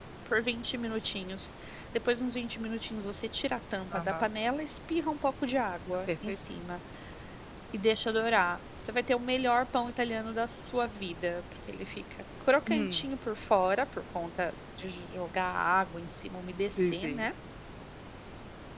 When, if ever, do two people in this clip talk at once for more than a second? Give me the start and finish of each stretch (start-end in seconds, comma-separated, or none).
none